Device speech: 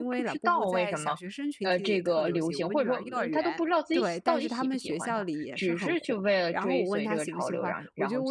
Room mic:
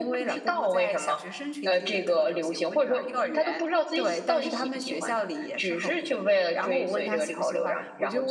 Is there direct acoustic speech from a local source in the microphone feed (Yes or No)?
No